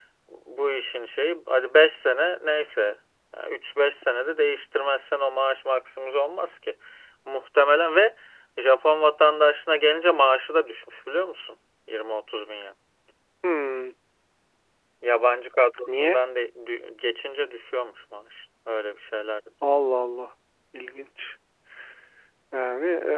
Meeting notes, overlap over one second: none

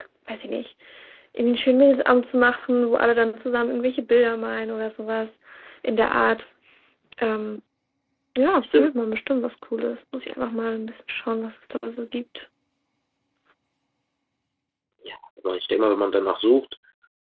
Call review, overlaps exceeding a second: none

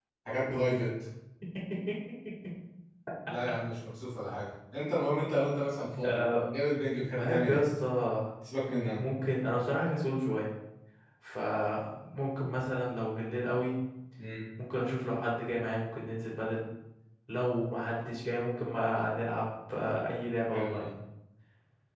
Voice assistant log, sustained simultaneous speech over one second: none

